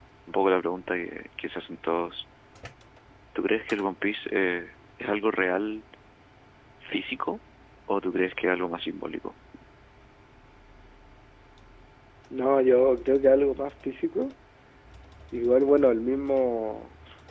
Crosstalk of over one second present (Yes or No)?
No